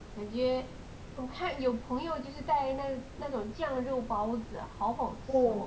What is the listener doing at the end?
taking over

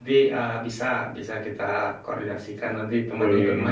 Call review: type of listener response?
listening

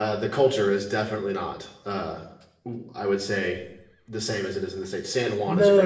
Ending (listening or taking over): taking over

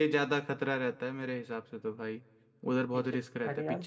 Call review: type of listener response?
taking over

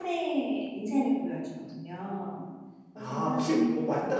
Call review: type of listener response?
taking over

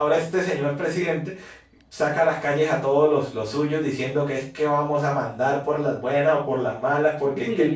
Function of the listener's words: listening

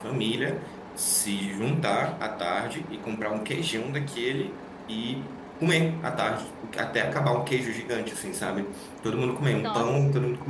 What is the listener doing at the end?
listening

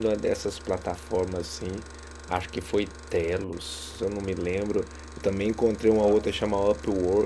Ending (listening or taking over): listening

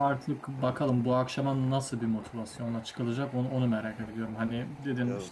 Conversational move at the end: listening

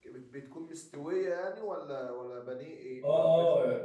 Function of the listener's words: taking over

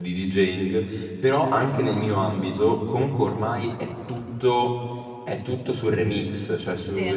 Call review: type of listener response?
listening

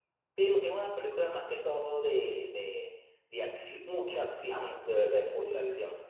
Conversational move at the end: listening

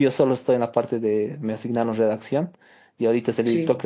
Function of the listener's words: listening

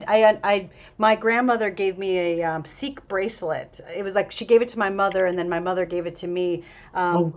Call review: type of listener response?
listening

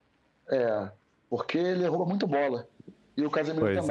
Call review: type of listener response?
listening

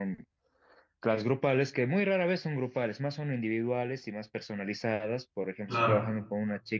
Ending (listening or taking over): listening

